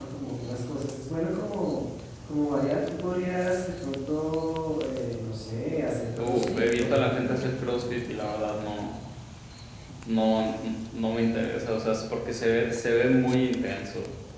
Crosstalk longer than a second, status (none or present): present